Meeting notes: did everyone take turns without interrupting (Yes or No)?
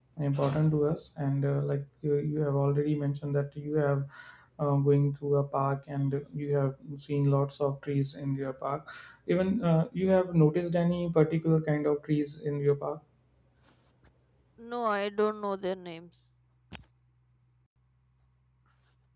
Yes